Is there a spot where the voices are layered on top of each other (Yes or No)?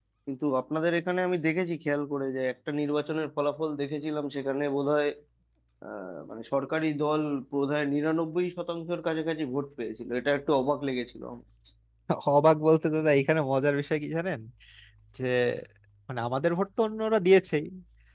No